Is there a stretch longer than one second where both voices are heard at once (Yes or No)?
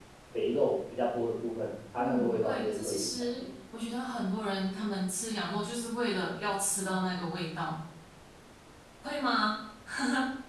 Yes